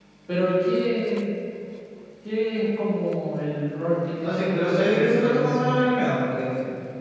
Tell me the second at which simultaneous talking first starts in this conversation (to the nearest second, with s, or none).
4 s